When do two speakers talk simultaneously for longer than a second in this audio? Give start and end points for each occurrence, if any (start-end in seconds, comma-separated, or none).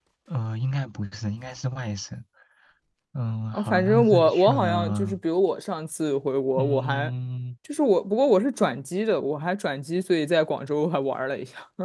3.5-5.2